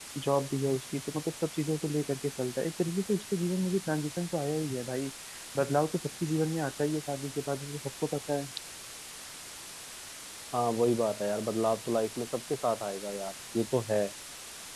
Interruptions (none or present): none